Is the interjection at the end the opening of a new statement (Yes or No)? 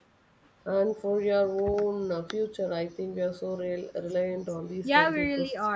Yes